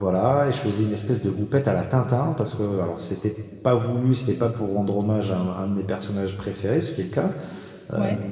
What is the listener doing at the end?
listening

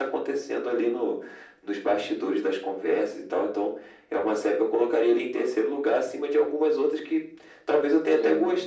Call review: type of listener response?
listening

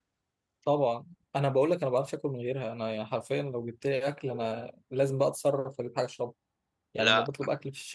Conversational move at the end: listening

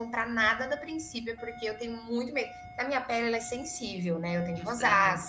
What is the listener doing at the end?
listening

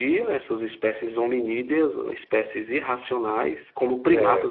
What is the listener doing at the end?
listening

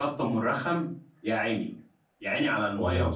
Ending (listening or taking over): listening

